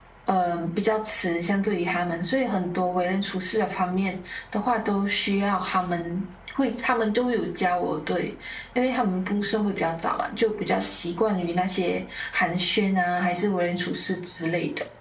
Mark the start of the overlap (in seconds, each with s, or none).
none